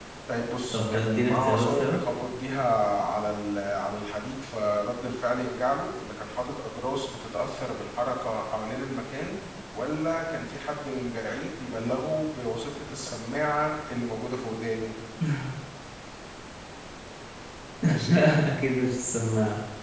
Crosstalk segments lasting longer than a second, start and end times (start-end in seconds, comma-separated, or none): 0.7-2.0